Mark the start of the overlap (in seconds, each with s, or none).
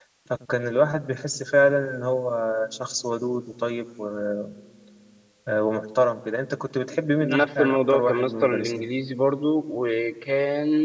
7.2 s